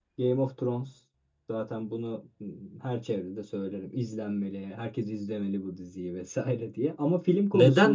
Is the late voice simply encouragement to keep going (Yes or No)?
No